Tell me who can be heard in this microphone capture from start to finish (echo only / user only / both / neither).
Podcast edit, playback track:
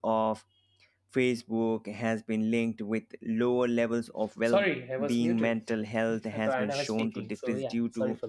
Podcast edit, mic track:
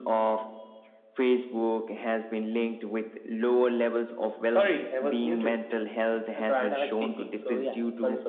echo only